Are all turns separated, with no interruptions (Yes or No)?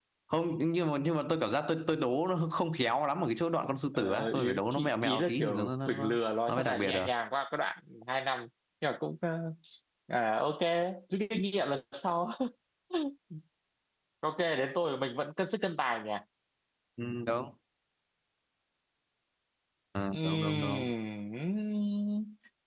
No